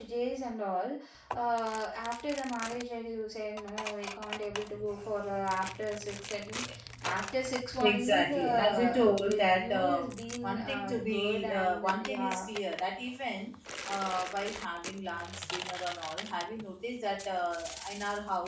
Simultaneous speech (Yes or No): Yes